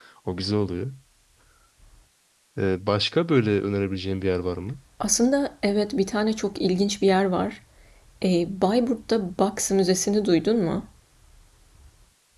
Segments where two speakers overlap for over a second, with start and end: none

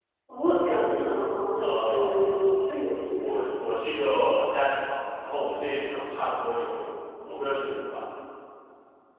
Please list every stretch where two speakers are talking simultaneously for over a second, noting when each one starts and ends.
1.6-3.4

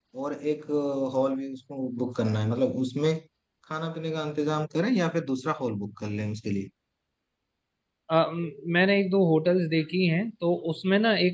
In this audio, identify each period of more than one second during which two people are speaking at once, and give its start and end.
none

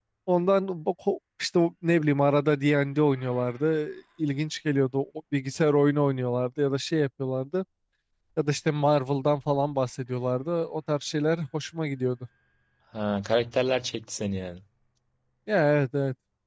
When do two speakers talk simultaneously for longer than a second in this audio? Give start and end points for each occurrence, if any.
none

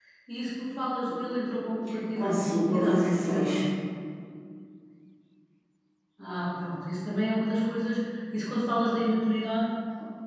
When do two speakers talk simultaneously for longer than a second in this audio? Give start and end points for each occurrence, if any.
2.2-3.6

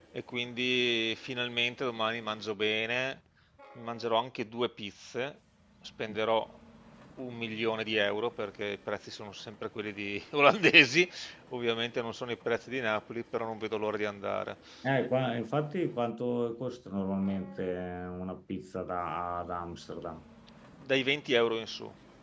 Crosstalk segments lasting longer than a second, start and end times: none

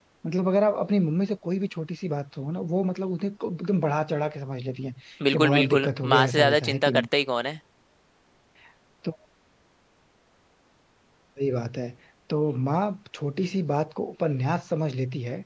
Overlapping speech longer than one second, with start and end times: 5.3-7.0

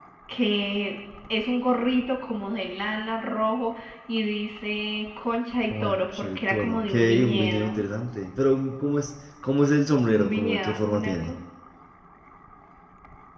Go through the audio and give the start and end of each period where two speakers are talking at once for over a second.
5.7-7.8, 10.1-11.3

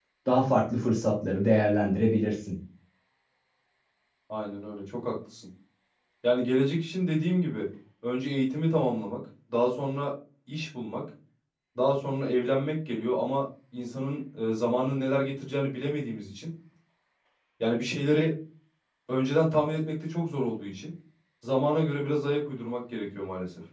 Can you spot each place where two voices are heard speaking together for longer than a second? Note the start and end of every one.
none

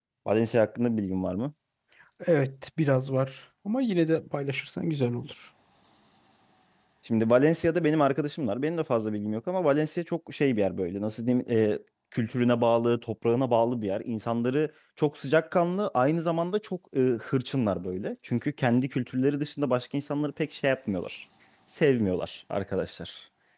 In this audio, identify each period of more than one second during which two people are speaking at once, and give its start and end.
none

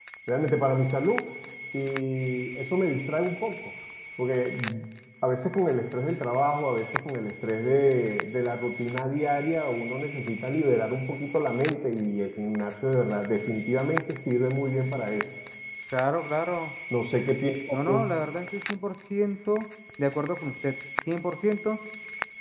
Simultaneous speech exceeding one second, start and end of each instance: none

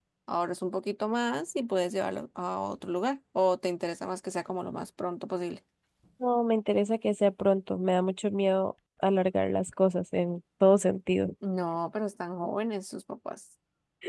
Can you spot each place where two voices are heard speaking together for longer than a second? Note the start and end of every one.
none

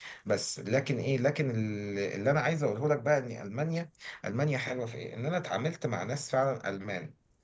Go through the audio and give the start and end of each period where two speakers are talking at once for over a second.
none

